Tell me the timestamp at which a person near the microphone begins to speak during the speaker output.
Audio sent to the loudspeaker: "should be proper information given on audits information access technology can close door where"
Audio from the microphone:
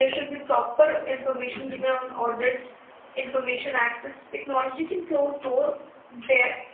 1.5 s

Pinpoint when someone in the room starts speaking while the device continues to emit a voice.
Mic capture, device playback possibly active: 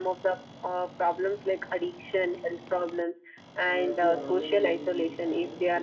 3.6 s

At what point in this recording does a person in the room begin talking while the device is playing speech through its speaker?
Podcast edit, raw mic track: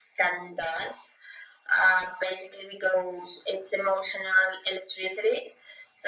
none

